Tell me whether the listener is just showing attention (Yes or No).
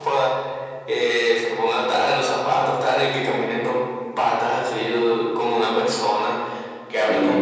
Yes